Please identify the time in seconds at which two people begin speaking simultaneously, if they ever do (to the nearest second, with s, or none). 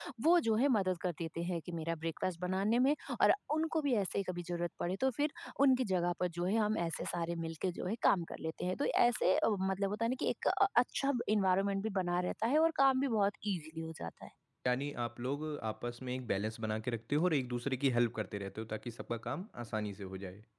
none